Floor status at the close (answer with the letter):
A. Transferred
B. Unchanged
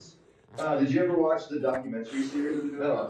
A